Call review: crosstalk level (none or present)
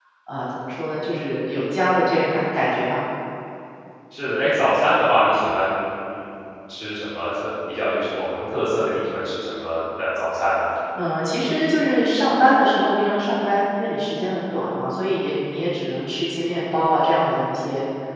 none